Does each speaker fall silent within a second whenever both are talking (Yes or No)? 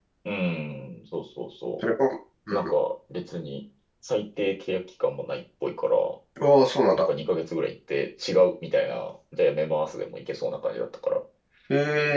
Yes